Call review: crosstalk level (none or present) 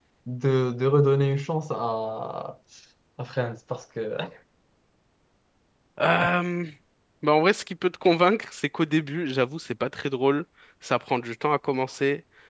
none